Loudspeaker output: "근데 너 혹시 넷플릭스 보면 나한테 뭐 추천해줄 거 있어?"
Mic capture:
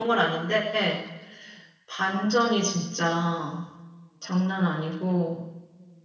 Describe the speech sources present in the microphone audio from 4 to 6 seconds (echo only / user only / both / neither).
user only